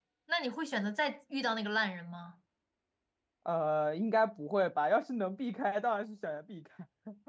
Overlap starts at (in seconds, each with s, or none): none